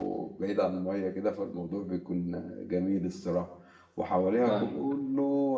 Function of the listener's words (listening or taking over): listening